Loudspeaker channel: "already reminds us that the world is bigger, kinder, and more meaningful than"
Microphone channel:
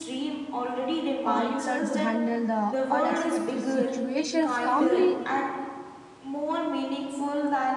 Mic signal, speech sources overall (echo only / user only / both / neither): both